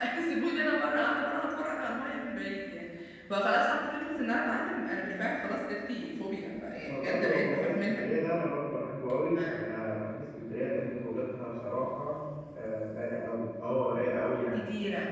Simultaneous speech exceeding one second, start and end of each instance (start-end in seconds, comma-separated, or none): 6.9-8.1